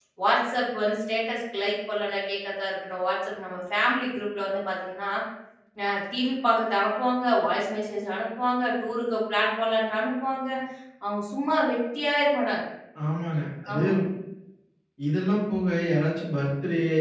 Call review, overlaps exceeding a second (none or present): none